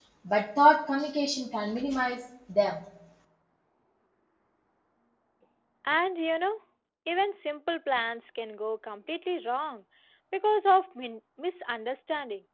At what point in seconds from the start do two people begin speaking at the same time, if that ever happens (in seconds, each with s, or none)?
none